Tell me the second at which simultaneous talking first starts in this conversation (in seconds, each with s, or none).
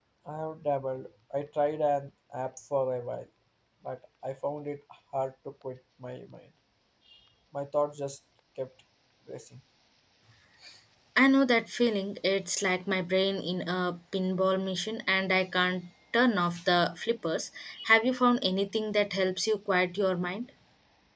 none